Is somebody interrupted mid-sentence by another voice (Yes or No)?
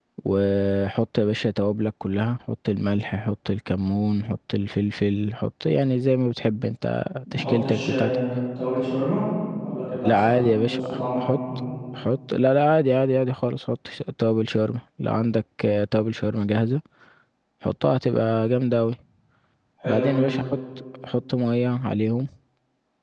Yes